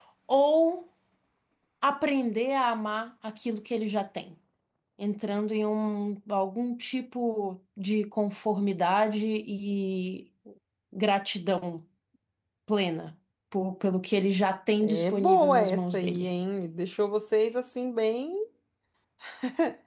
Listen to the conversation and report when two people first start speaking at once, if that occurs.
14.8 s

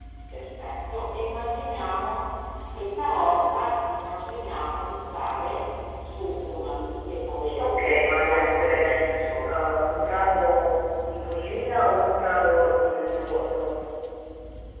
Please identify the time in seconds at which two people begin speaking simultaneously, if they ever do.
7.6 s

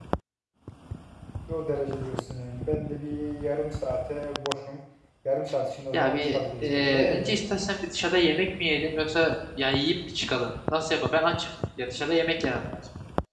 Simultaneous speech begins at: 5.9 s

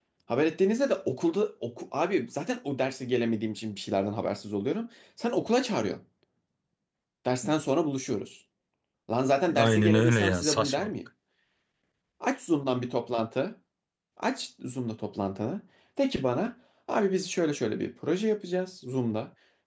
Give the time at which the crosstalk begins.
9.6 s

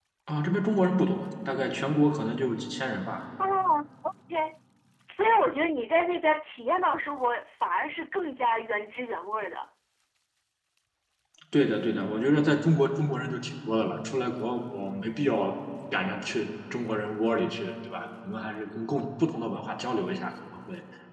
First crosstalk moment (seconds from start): none

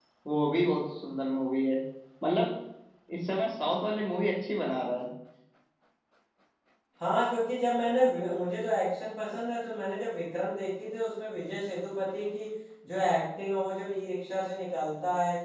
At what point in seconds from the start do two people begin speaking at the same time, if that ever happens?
none

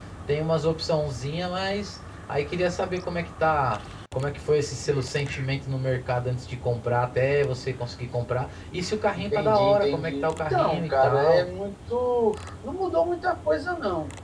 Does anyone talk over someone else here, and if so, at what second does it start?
9.2 s

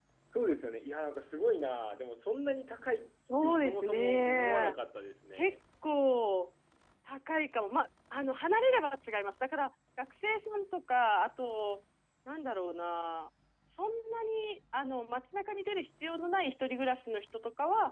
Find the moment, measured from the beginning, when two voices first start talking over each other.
3.4 s

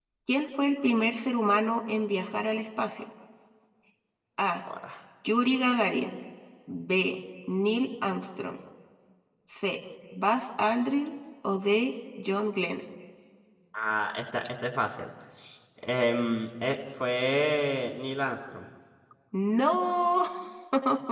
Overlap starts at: none

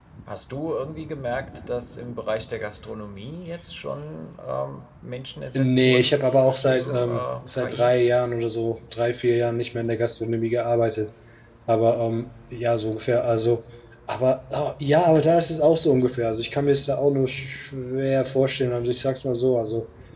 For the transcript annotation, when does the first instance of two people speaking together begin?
5.5 s

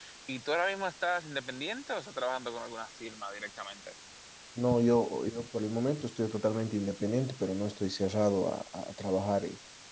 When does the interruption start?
none

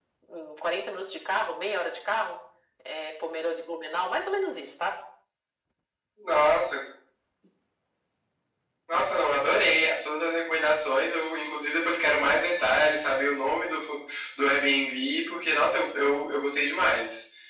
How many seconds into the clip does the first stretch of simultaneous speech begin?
none

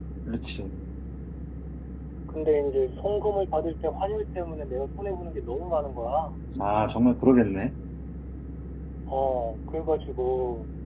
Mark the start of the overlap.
none

